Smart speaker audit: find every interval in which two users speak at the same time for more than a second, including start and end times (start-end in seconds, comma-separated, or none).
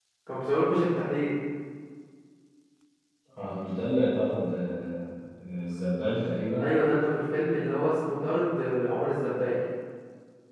none